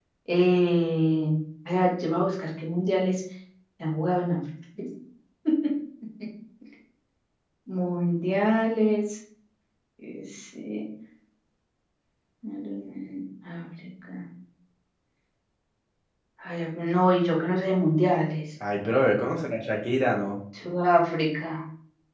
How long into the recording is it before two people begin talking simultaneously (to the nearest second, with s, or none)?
none